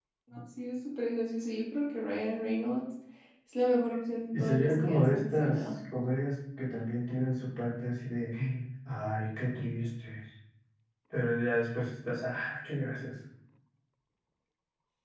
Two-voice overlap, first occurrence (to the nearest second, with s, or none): 4 s